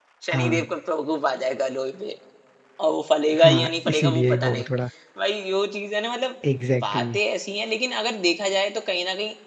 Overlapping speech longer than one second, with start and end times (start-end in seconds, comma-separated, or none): 3.4-4.7